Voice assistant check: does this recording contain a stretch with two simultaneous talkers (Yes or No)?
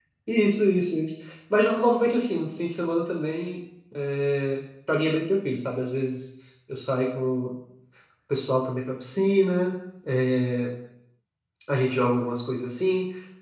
No